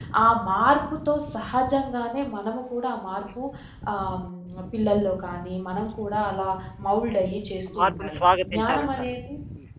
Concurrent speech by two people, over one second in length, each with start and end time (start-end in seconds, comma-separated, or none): 7.8-9.1